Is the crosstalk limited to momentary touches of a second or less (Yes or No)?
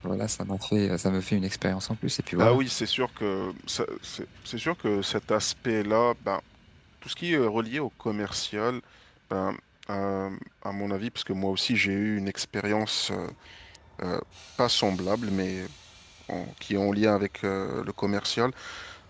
Yes